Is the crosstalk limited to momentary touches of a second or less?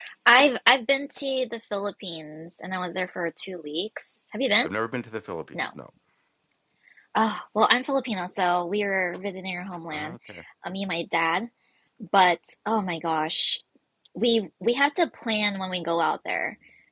Yes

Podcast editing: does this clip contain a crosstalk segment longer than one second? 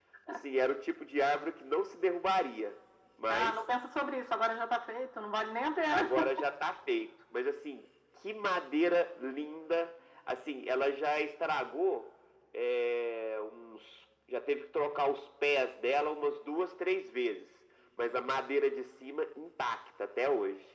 No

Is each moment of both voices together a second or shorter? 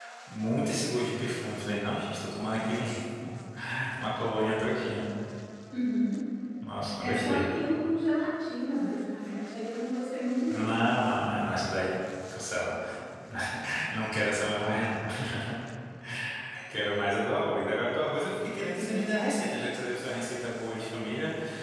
Yes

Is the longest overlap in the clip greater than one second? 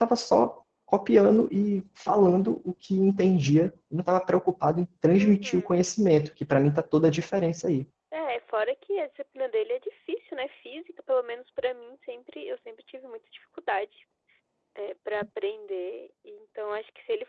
No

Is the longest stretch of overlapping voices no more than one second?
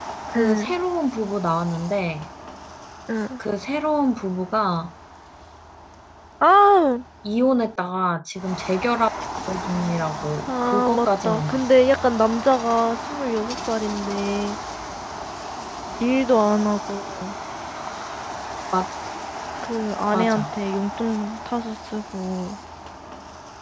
No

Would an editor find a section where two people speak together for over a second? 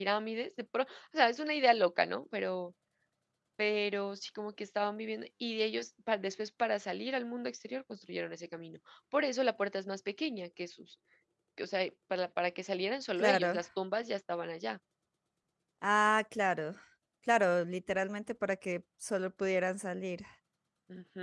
No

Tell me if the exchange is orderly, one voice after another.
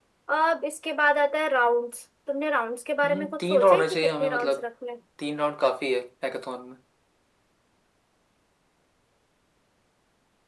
No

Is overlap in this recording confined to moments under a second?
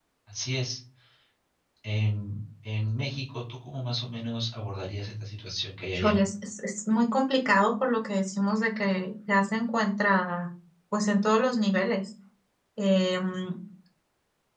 Yes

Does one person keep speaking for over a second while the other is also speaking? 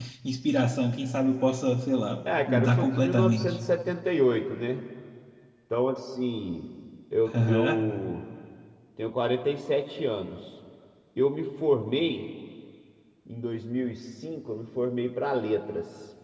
Yes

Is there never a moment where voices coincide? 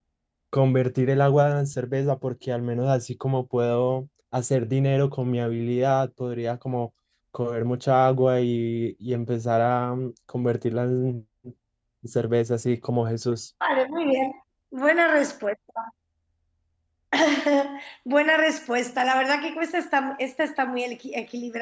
Yes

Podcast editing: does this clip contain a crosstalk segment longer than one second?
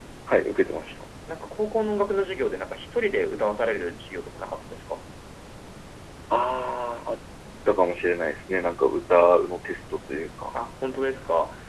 No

